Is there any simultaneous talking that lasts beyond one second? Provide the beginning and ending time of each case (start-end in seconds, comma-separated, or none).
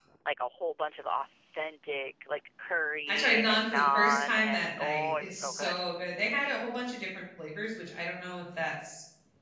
3.1-5.8